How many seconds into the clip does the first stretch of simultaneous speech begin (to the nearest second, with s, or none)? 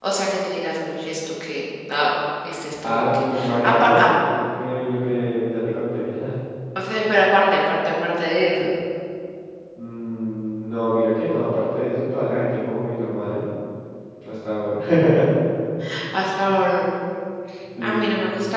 3 s